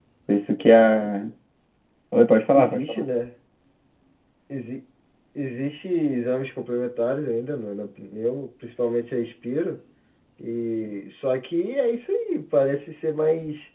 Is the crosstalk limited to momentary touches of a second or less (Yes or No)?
Yes